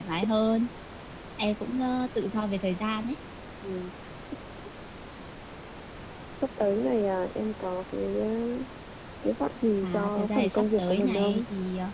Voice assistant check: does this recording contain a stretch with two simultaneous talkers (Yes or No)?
Yes